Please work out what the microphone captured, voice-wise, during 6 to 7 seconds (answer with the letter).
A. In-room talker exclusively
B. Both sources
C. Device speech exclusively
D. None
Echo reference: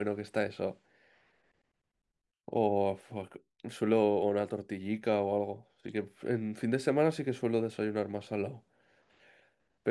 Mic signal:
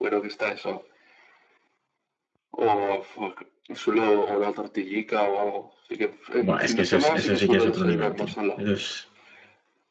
B